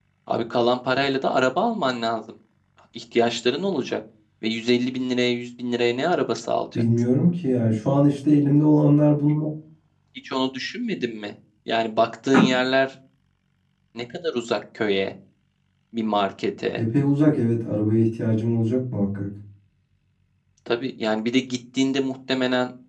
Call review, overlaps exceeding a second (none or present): none